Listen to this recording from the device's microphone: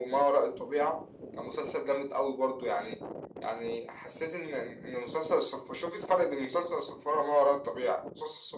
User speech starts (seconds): none

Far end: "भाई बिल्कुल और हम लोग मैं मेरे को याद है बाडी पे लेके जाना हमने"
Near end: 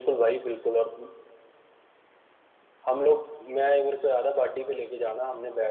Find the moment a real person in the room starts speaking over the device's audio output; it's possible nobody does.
none

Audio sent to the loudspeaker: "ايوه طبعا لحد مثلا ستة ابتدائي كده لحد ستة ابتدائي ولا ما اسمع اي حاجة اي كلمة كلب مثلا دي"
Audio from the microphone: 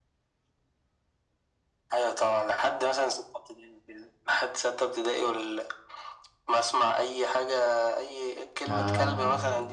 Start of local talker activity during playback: 8.7 s

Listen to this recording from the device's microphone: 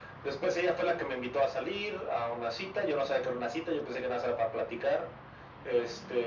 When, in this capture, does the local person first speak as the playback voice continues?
none

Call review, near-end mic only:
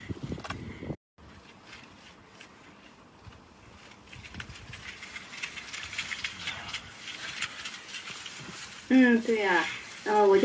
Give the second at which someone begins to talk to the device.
8.9 s

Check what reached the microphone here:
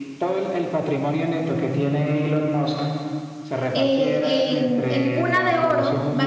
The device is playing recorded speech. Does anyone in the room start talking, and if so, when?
3.7 s

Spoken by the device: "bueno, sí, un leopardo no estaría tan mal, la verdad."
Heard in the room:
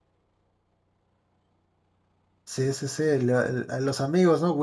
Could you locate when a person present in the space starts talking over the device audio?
2.4 s

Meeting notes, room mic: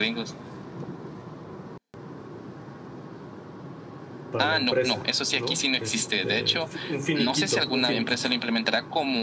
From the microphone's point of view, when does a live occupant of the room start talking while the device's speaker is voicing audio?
4.3 s

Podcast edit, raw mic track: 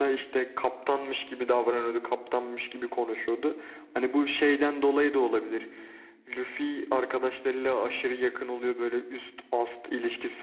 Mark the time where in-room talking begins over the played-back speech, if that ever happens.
none

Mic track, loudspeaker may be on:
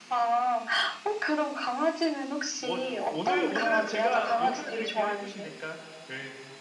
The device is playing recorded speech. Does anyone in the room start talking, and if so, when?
2.6 s

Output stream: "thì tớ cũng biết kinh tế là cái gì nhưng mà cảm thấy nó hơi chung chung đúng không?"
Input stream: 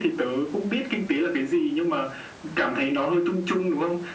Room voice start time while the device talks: none

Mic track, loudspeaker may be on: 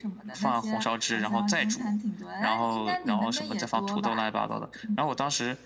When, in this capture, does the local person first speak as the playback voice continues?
none

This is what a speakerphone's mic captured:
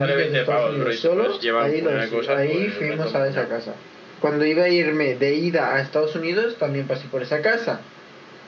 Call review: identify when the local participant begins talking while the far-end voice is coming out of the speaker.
none

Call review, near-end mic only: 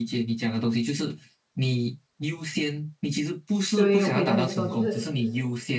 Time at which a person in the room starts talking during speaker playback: 3.7 s

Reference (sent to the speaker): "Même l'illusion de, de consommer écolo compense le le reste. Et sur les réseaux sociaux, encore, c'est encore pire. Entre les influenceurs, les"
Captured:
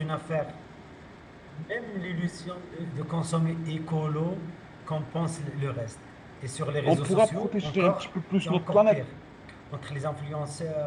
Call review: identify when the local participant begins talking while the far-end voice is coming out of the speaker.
6.8 s

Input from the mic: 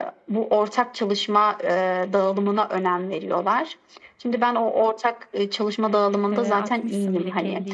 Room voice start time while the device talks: 6.3 s

